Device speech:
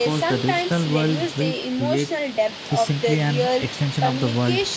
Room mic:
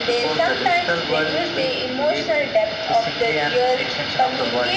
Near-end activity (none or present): none